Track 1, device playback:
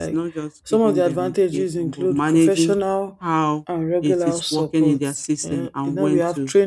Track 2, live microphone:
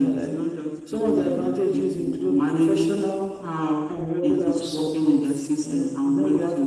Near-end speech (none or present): none